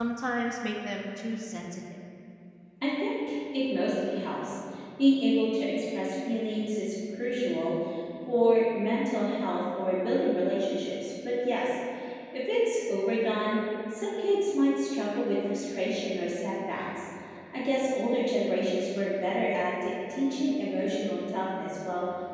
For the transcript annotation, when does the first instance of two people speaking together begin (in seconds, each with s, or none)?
none